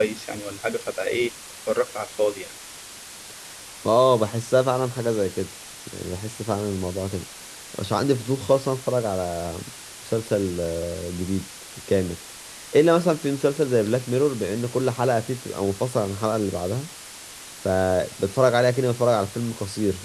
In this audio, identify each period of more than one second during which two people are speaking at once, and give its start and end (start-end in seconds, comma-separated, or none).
none